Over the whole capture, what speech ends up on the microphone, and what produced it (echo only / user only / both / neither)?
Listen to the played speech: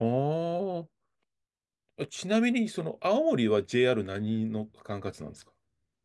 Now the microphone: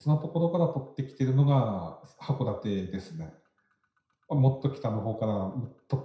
user only